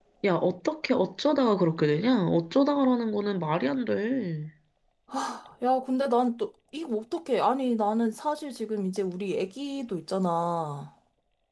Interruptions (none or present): none